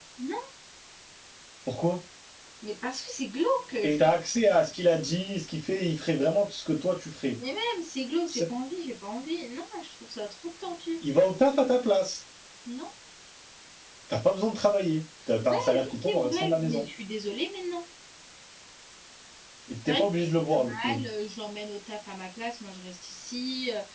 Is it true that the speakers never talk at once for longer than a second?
No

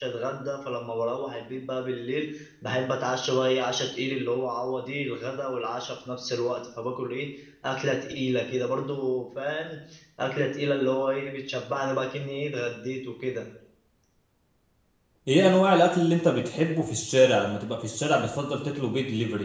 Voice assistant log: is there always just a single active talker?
Yes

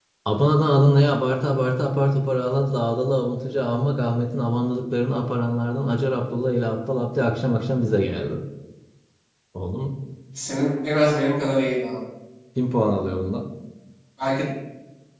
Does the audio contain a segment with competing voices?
No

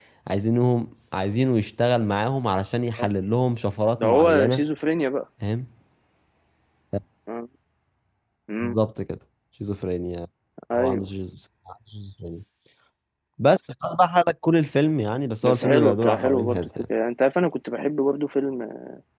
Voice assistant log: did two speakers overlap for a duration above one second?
Yes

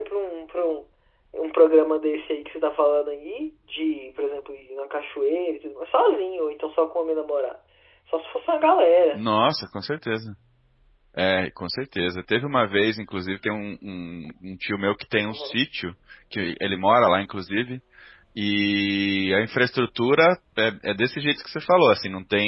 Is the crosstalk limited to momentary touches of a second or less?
Yes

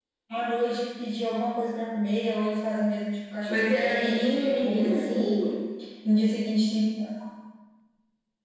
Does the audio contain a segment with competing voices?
Yes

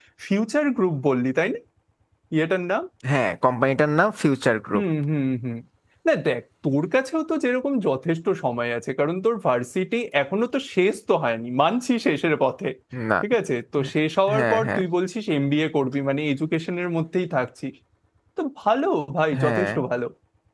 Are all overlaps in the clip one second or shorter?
Yes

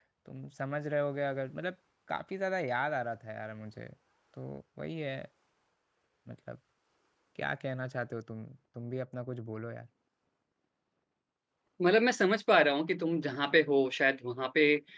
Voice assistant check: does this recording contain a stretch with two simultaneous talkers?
No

